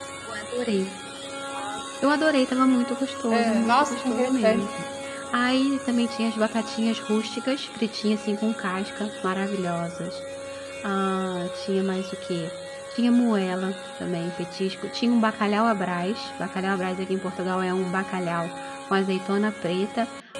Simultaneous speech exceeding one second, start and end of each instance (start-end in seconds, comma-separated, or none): 3.3-4.6